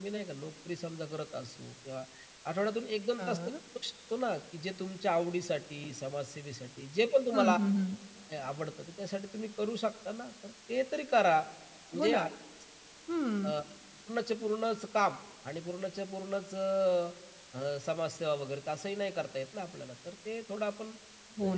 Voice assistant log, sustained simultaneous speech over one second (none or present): none